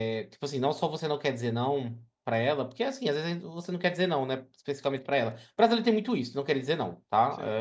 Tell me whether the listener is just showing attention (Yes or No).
Yes